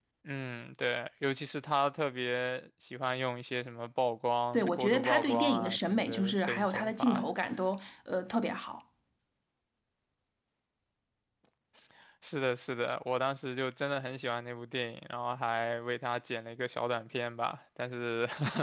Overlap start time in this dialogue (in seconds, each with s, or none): 4.5 s